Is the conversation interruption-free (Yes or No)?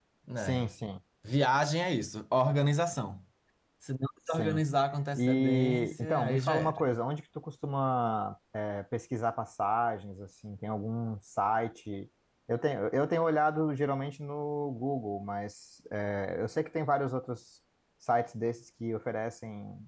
No